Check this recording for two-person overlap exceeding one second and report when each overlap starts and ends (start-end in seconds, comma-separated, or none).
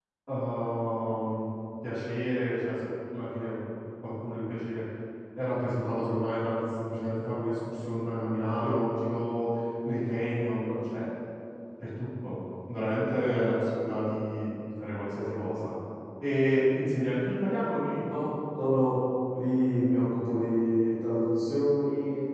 none